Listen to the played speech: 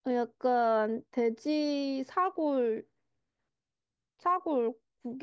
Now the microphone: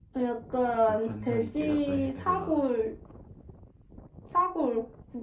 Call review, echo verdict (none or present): present